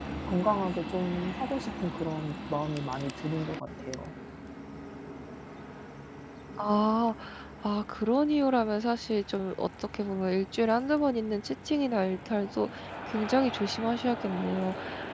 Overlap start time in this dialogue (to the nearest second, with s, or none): none